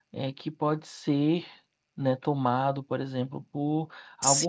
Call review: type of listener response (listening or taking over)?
listening